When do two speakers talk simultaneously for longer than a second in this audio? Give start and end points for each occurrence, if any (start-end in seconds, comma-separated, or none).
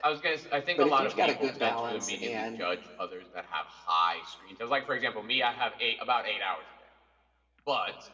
0.8-2.6